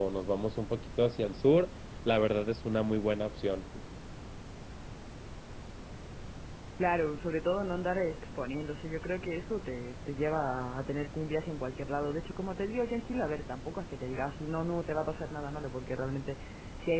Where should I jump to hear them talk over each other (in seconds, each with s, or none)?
none